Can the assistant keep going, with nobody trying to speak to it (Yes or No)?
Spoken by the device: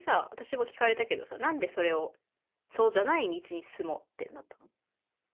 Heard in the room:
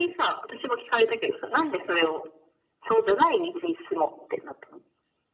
Yes